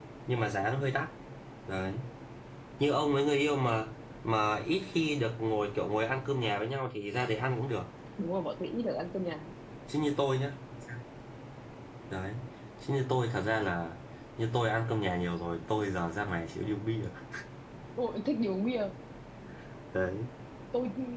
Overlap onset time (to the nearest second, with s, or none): none